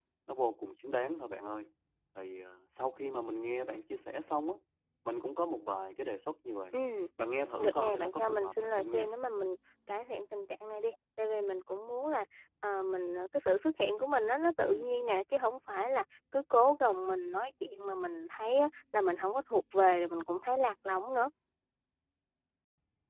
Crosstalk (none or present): present